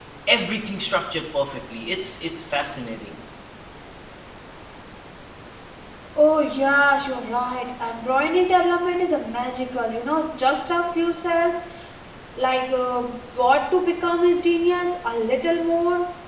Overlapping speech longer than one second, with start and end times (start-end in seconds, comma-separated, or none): none